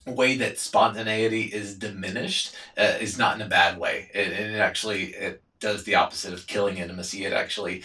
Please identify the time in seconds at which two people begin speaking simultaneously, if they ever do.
none

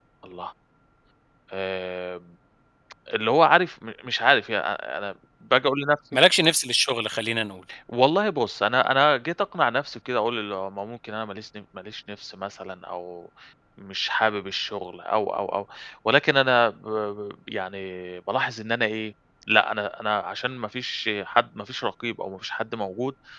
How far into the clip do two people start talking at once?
none

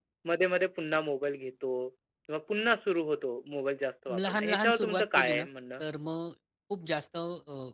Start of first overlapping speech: 4.1 s

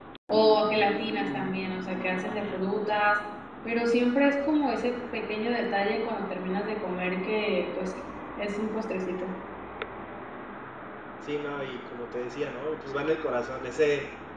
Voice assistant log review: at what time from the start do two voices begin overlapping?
none

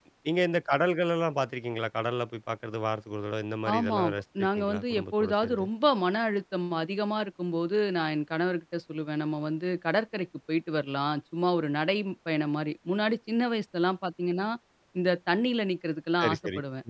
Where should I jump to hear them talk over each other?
3.7 s

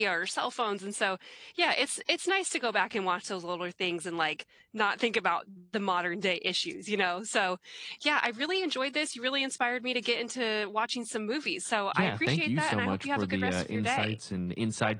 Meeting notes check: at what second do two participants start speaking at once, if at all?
11.9 s

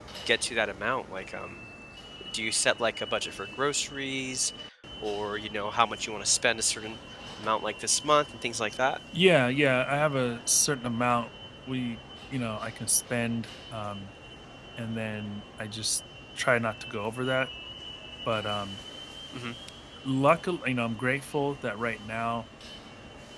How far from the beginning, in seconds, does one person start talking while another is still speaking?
none

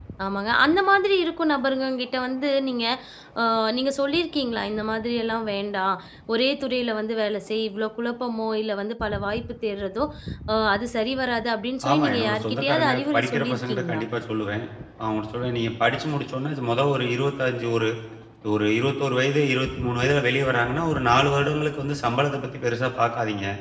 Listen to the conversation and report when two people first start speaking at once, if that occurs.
11.8 s

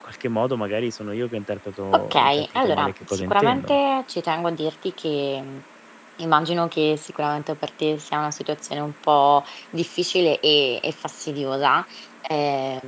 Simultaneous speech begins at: 1.9 s

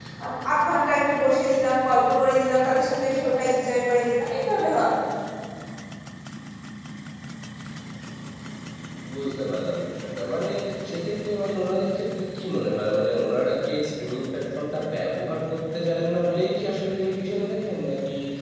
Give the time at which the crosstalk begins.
none

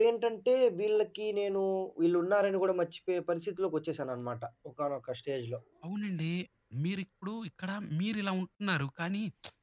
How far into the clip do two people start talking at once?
none

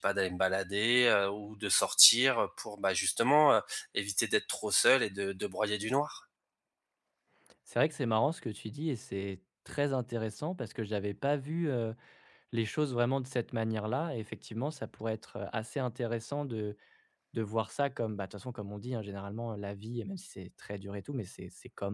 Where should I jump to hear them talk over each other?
none

